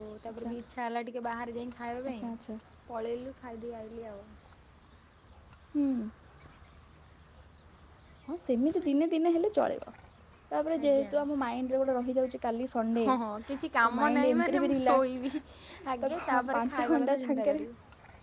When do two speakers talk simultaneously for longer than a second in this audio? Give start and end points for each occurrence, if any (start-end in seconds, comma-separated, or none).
13.8-15.3, 16.0-17.6